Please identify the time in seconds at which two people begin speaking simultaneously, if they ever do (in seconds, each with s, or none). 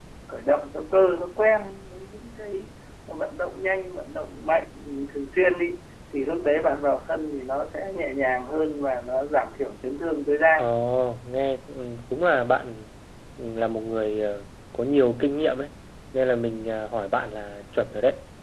none